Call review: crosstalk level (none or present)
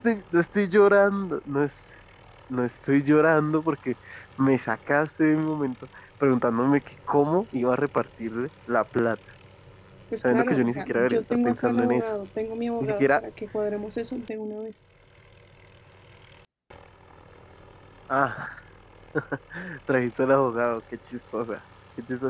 present